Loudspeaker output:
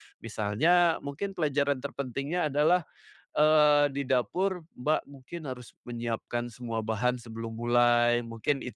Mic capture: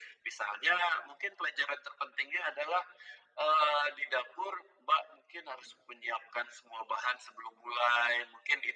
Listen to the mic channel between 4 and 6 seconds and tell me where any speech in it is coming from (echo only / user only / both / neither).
echo only